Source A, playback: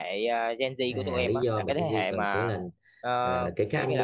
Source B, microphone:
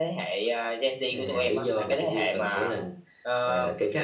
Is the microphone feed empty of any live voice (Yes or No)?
Yes